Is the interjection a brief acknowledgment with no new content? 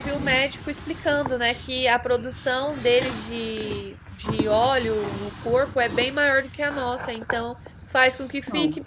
Yes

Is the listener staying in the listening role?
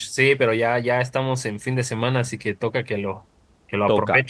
No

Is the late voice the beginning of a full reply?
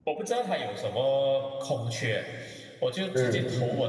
No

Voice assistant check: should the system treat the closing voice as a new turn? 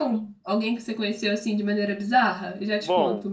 Yes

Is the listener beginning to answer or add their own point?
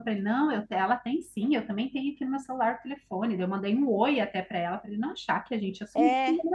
Yes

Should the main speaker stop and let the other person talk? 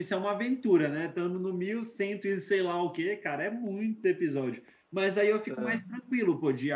No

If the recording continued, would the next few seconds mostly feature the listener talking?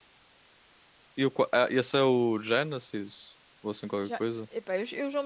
Yes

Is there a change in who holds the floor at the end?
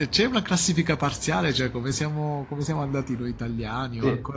Yes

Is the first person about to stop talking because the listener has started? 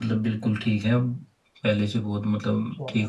Yes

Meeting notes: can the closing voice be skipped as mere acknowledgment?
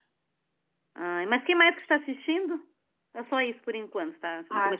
No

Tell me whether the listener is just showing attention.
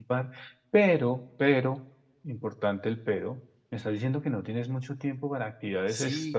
No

